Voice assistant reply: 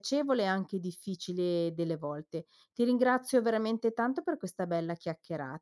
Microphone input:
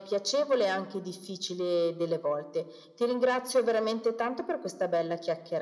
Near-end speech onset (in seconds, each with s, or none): none